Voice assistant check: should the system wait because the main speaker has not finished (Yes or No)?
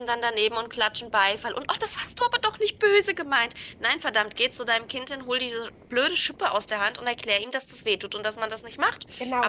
No